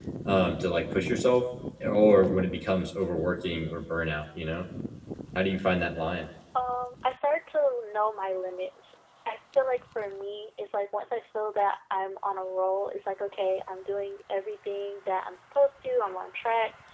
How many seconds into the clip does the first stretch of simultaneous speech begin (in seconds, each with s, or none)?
none